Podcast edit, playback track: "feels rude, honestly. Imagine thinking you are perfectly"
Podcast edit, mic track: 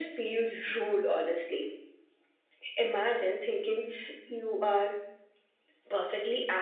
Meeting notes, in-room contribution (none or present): none